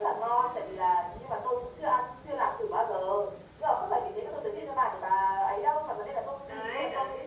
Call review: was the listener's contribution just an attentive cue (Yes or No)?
Yes